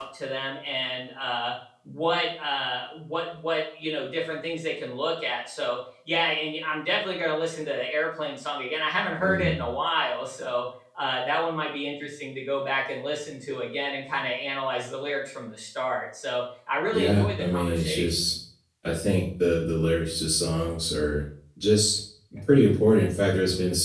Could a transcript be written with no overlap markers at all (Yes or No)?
No